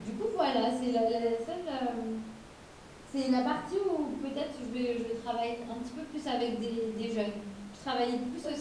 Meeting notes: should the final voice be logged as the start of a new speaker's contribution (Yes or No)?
No